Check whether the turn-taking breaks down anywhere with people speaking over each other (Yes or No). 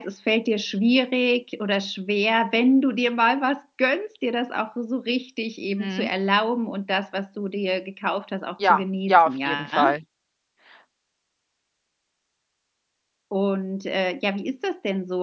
Yes